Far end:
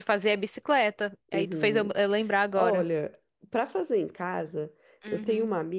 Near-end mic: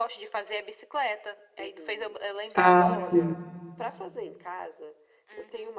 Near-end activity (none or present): present